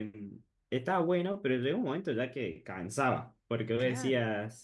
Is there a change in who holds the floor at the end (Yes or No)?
No